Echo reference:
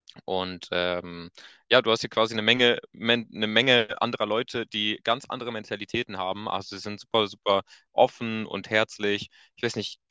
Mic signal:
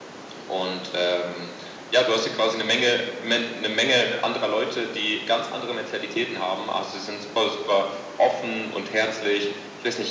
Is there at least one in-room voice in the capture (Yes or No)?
No